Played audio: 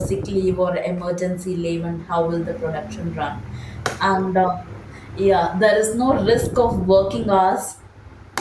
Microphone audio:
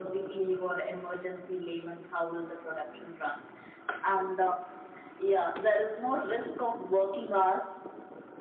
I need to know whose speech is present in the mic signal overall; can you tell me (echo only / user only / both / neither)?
echo only